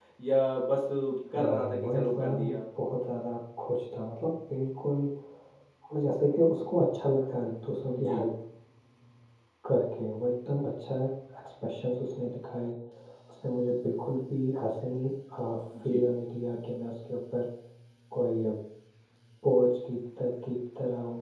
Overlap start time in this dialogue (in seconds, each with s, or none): 1.4 s